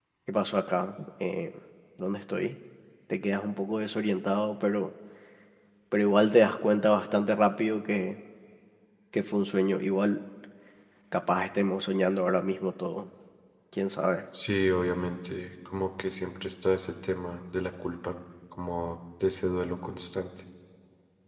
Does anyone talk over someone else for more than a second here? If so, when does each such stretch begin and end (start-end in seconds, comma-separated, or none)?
none